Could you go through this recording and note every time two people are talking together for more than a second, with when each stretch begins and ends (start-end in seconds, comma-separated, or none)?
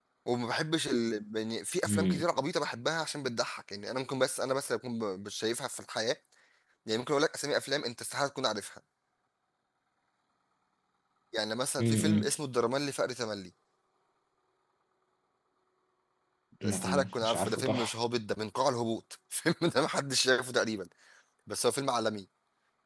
16.6-17.9